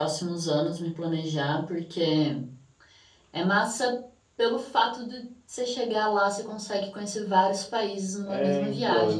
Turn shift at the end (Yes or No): Yes